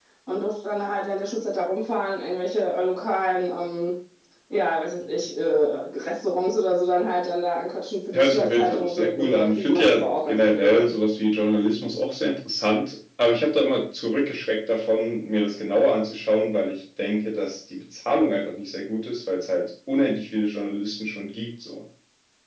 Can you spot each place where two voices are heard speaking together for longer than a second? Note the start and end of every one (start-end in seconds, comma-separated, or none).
8.1-10.8